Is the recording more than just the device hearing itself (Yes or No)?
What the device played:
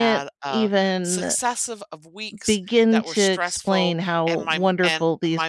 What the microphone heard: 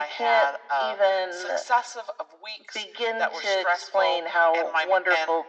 No